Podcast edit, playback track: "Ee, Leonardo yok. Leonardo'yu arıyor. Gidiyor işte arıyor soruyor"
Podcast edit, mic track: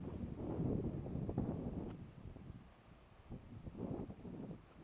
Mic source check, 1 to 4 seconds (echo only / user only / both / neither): neither